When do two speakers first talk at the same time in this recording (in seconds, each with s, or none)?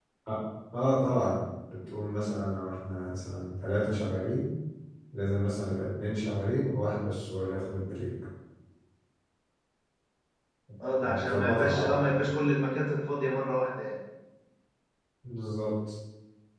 11.0 s